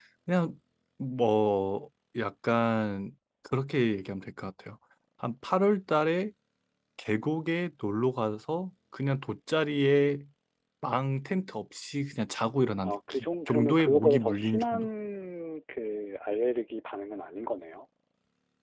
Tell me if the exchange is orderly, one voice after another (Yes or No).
No